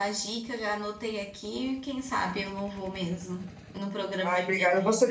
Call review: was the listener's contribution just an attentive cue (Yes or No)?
No